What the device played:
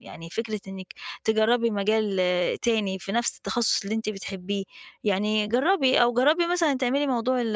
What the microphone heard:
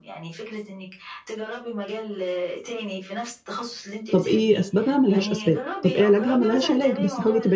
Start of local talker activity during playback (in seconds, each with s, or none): 4.1 s